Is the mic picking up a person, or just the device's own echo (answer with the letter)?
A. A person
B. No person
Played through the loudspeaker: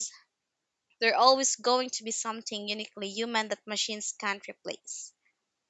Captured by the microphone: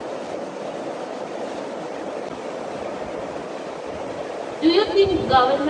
A